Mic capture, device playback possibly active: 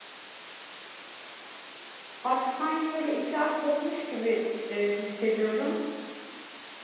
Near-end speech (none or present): present